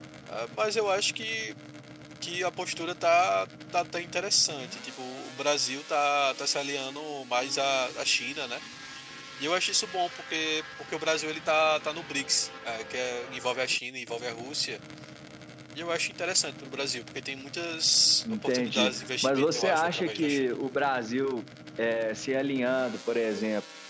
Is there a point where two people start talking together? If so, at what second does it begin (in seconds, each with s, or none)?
18.2 s